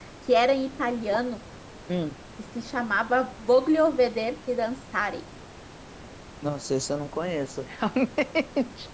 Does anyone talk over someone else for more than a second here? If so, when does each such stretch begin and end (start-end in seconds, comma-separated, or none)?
none